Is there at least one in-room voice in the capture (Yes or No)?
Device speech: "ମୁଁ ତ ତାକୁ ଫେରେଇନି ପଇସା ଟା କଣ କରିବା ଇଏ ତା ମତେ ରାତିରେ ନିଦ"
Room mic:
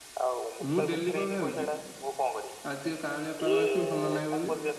Yes